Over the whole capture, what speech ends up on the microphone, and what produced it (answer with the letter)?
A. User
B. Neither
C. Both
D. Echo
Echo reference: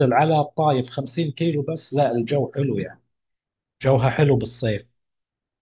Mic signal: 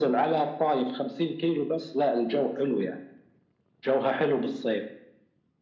D